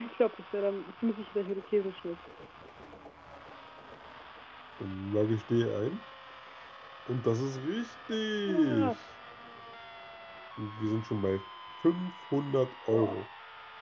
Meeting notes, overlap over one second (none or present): none